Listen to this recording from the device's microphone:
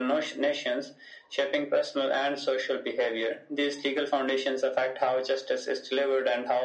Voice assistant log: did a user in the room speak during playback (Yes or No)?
No